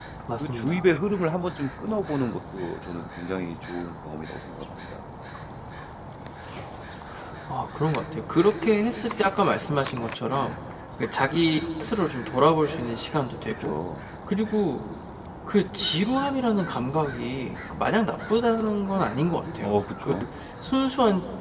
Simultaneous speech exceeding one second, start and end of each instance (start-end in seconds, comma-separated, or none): none